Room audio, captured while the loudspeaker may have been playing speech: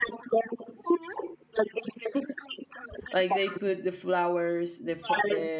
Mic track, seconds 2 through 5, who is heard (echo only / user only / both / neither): both